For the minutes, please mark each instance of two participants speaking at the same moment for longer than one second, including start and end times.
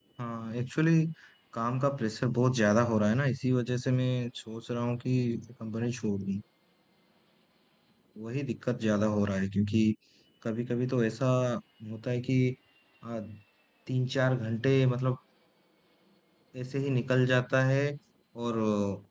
none

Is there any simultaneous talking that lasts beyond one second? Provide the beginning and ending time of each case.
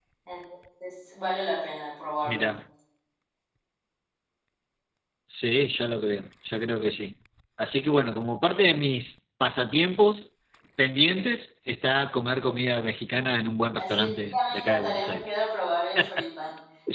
13.8-15.4

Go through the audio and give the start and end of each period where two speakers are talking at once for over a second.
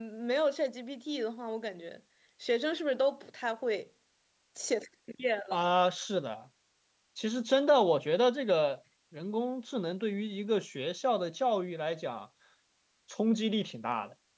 none

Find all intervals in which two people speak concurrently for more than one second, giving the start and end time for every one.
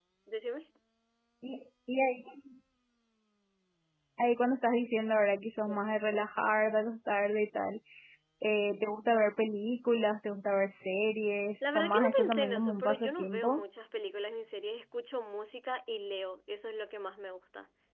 11.6-13.6

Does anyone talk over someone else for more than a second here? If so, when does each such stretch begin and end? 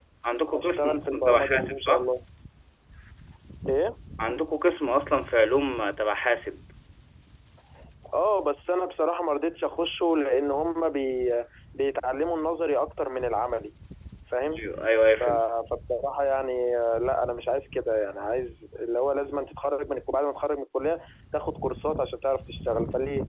0.6-2.0

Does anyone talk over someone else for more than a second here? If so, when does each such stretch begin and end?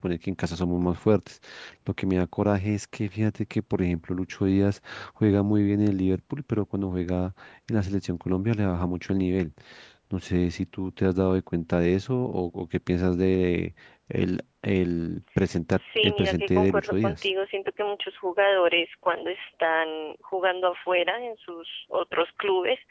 15.7-17.2

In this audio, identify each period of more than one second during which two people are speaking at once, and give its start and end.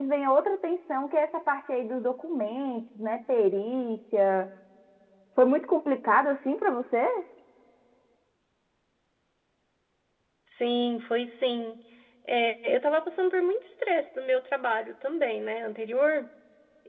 none

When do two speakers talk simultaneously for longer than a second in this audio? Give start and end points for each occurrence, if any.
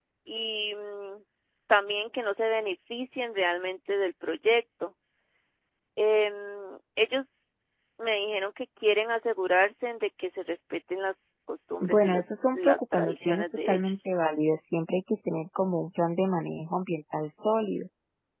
11.8-14.1

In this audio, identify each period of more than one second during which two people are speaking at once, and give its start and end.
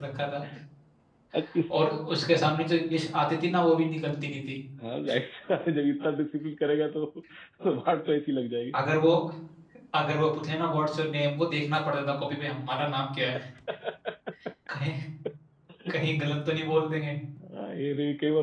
none

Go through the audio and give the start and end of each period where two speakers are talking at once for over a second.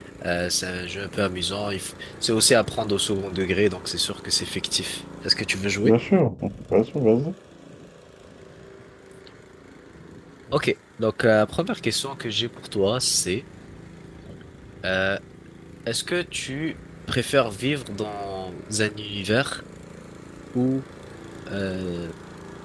none

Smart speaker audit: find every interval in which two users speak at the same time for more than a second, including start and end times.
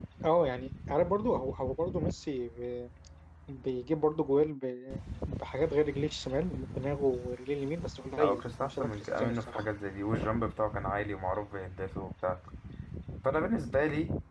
8.2-9.7

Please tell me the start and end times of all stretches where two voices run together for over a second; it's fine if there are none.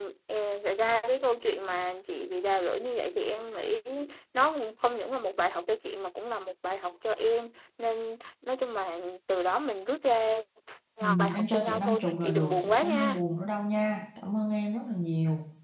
11.0-13.2

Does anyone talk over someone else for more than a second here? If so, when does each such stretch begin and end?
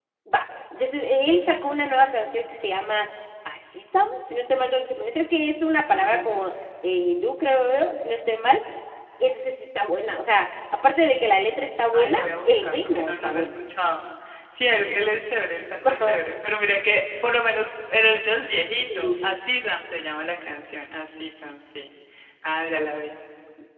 11.9-13.5

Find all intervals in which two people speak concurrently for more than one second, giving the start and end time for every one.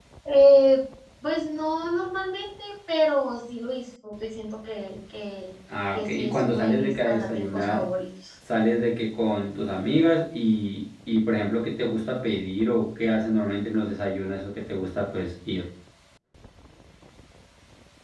5.9-7.9

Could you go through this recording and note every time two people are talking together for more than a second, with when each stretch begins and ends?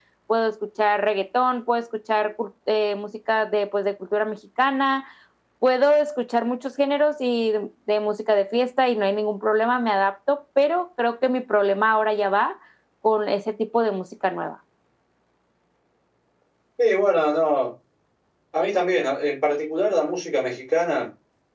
none

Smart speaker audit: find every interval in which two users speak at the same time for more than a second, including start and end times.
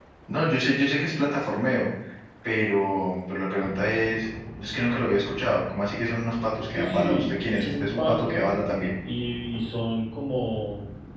6.7-8.5

